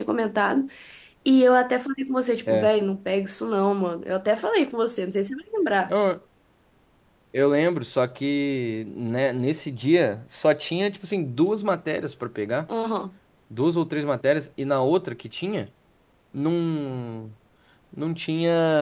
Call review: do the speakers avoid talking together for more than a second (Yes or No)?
Yes